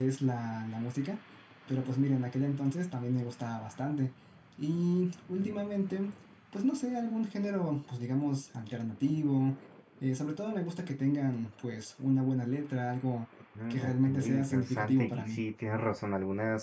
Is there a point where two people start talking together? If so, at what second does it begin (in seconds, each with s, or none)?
13.7 s